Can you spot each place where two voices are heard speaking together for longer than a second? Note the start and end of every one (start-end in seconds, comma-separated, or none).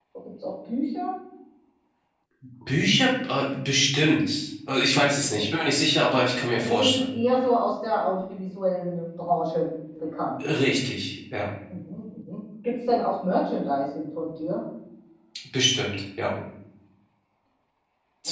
none